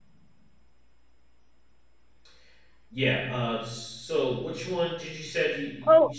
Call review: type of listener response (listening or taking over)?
taking over